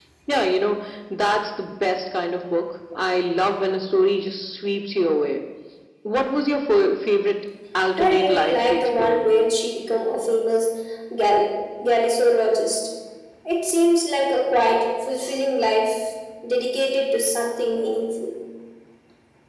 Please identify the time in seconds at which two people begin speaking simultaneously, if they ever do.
8.0 s

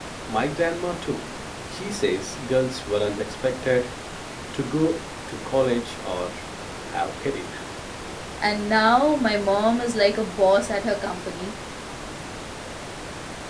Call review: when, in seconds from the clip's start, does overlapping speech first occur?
none

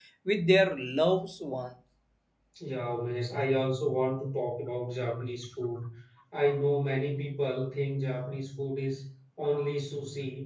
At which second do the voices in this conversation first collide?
none

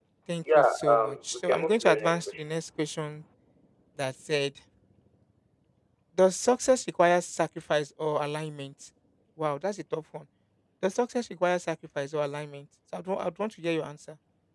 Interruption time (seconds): 0.6 s

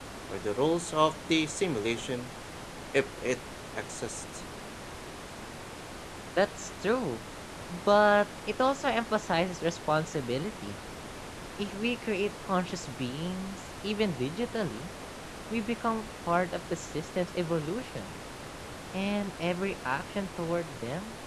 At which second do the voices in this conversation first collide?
none

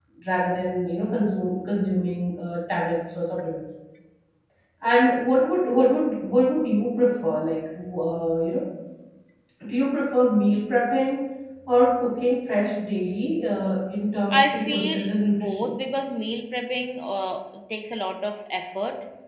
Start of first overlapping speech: 14.3 s

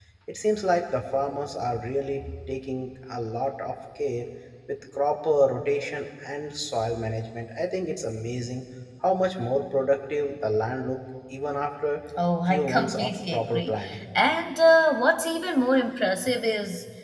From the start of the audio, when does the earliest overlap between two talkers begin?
12.5 s

